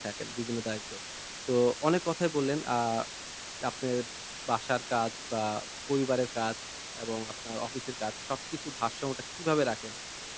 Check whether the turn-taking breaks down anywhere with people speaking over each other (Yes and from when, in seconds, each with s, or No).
No